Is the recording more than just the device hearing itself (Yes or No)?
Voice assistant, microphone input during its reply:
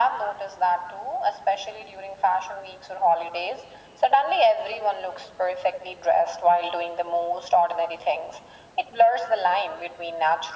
No